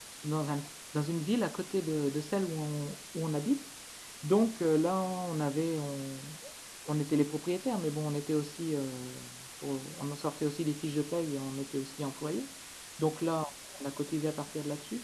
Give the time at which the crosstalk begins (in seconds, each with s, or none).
none